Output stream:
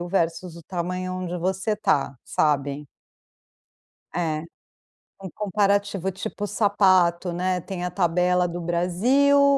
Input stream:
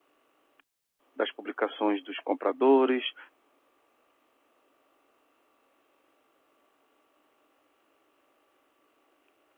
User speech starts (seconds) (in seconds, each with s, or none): 1.2 s